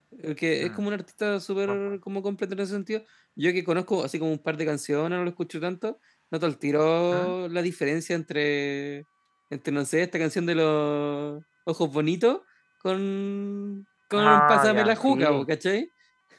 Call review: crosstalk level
present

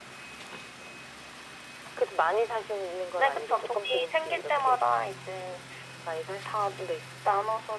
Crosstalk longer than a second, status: present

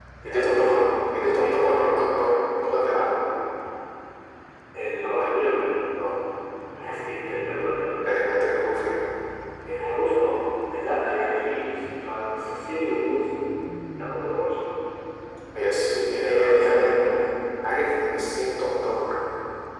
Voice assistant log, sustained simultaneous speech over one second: present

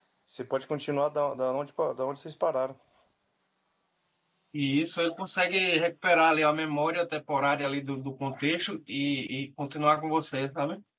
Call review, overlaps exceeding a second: none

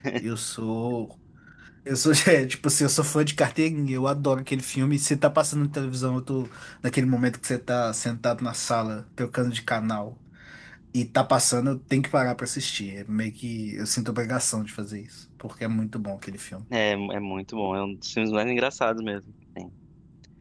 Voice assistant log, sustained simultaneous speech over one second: none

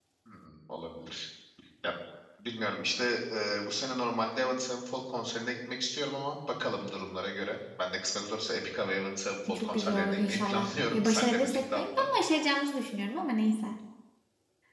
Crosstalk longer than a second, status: present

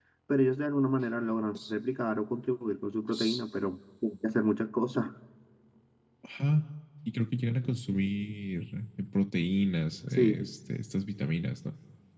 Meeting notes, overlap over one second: none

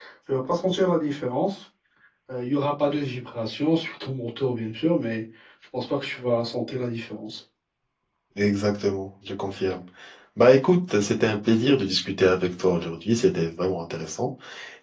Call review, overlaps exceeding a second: none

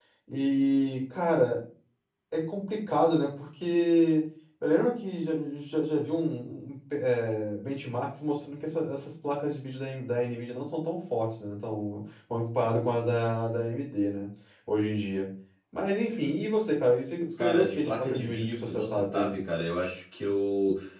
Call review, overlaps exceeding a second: present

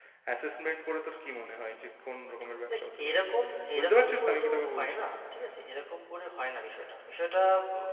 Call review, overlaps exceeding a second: present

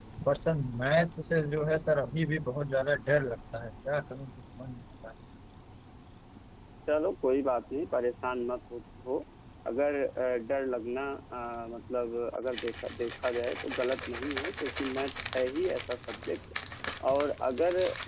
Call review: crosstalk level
none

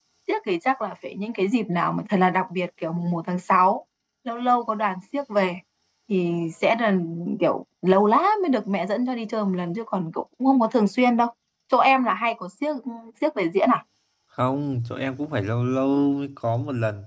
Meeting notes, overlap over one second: none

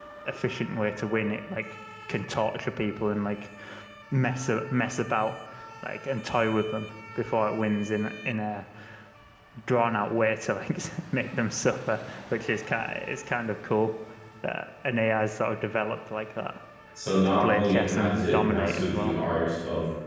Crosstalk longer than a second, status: present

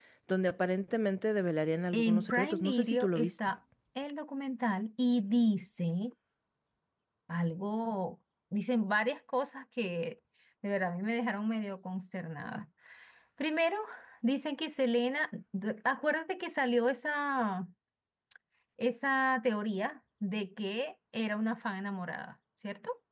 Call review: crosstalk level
present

